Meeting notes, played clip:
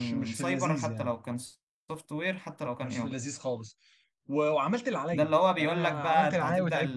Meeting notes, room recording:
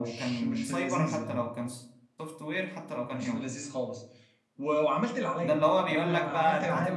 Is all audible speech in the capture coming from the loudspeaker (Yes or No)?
Yes